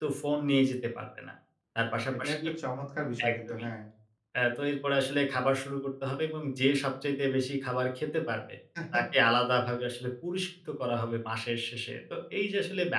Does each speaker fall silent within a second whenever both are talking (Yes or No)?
Yes